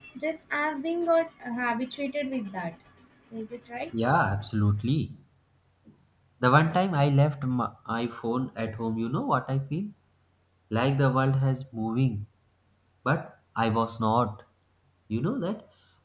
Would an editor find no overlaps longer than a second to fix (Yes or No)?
Yes